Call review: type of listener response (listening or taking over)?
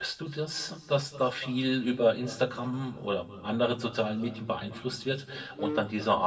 listening